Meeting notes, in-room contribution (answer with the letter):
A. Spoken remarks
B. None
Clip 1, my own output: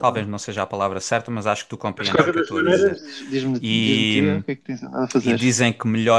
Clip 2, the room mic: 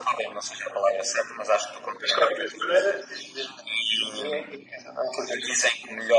B